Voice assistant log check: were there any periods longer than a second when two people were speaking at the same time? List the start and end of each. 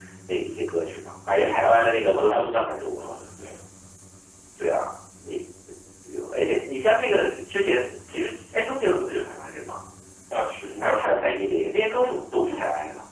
1.3-3.1

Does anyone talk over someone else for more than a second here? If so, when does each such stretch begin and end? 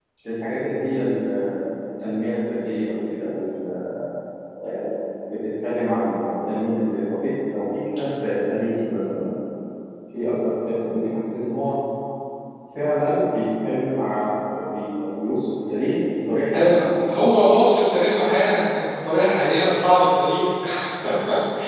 none

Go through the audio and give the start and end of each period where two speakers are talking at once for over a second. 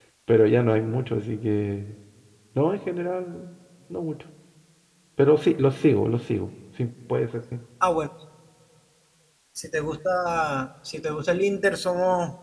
none

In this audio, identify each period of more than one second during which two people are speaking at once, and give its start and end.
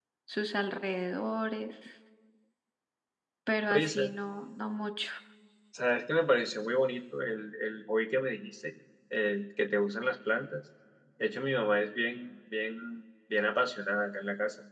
none

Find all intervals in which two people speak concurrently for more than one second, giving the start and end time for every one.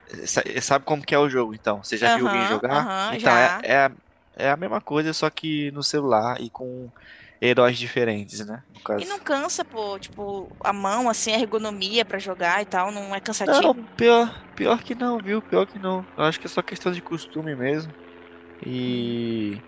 2.0-3.6

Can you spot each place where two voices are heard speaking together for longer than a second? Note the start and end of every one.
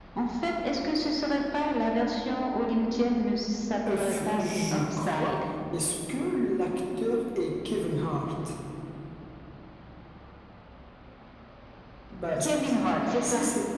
4.0-5.3

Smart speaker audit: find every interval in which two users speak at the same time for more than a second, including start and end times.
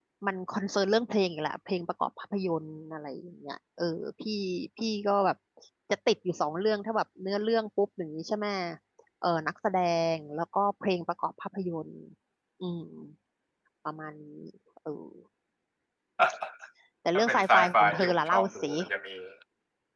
17.2-18.7

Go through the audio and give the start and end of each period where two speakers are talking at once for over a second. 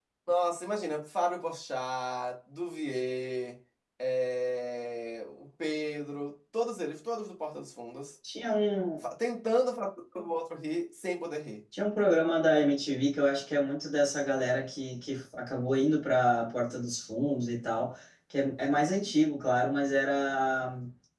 none

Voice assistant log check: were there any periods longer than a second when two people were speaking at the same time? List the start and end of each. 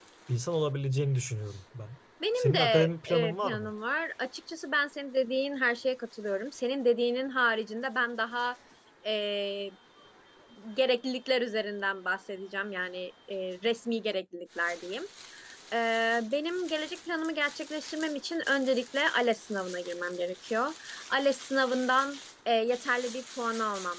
2.4-3.7

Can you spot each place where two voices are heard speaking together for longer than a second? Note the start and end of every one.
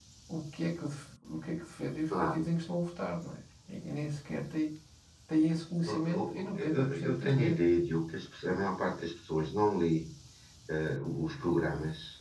5.9-7.7

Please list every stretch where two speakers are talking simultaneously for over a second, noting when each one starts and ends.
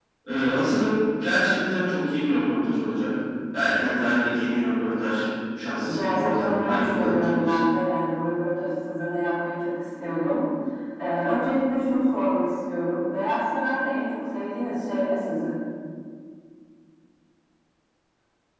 5.9-7.6

